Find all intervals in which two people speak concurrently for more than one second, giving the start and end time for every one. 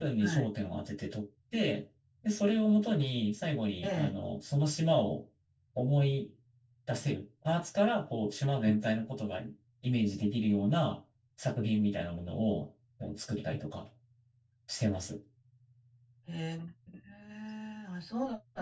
none

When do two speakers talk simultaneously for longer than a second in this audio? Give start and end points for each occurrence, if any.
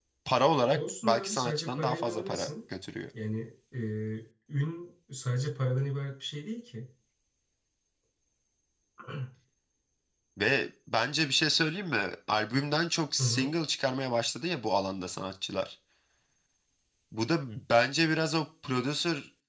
0.7-2.5

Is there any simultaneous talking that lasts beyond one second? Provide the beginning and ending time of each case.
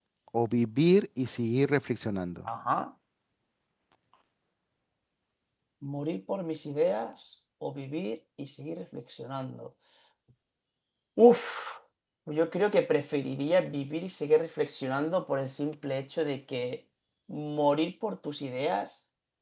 none

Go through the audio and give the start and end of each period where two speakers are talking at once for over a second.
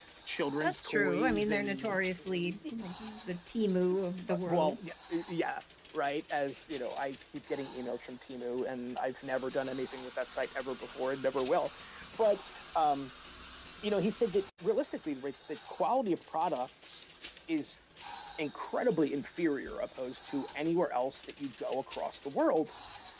0.6-2.0

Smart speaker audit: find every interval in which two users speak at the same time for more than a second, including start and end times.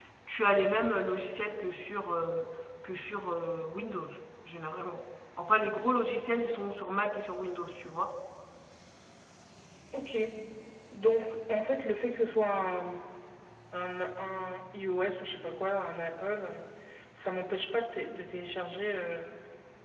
none

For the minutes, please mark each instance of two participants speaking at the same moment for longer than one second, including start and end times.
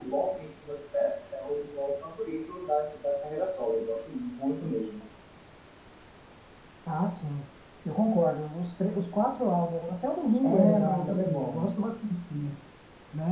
10.4-11.7

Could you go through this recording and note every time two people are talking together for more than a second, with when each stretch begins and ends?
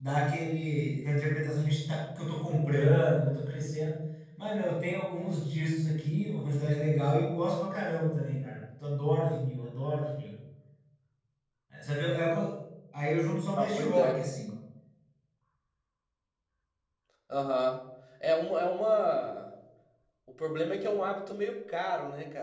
none

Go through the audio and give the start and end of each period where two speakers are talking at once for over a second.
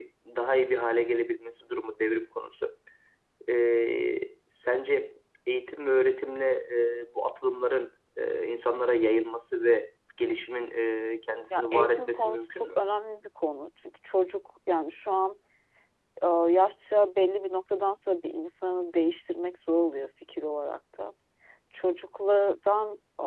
11.5-12.8

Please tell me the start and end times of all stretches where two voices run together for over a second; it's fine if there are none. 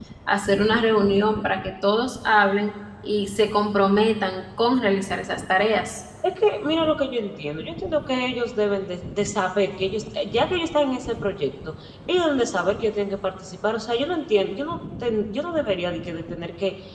none

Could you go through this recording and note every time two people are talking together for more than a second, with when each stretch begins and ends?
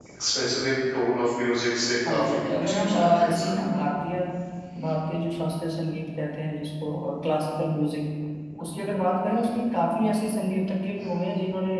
2.1-3.8

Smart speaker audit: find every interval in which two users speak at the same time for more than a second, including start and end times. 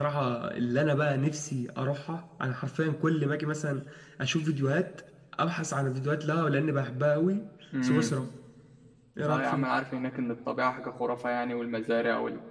none

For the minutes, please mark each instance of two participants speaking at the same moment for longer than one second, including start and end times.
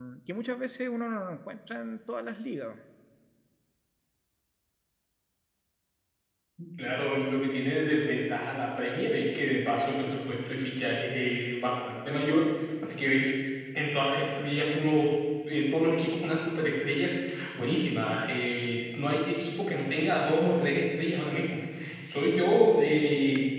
none

